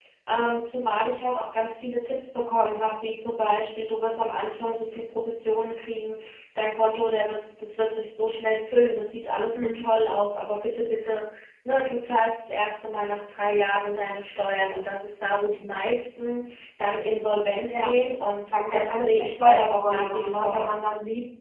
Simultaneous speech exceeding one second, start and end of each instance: 18.4-20.7

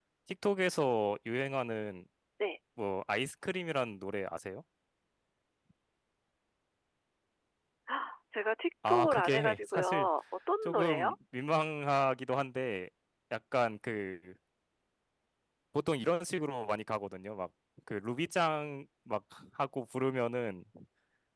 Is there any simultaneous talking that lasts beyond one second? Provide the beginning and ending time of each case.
8.9-10.1

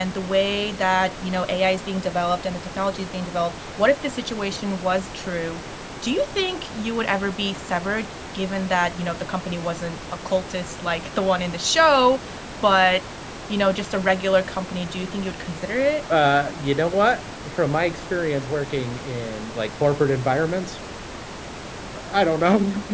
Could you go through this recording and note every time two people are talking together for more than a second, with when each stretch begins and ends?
none

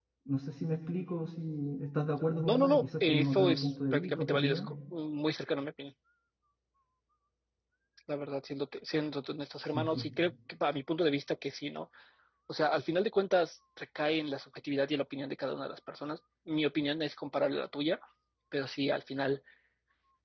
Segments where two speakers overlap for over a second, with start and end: 2.5-4.7

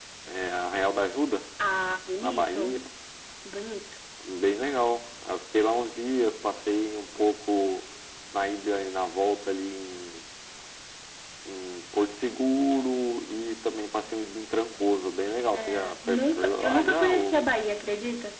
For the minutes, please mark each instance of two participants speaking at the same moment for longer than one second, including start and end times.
15.5-17.5

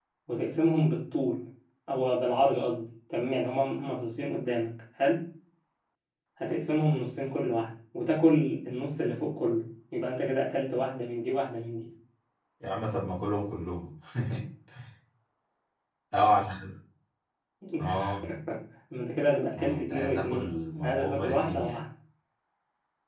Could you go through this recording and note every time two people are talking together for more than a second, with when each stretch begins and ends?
19.6-21.8

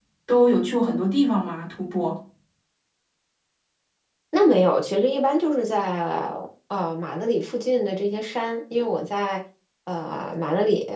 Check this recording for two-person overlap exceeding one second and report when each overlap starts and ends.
none

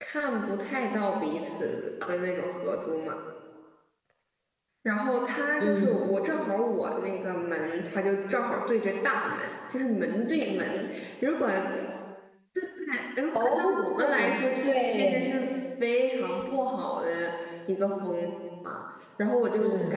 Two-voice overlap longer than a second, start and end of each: 13.3-15.3

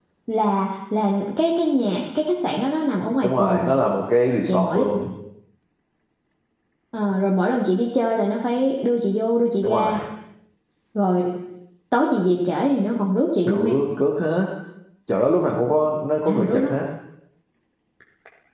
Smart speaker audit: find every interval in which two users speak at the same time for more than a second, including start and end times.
none

